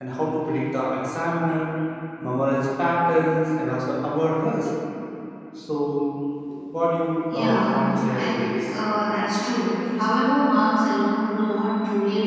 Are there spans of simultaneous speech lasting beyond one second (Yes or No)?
Yes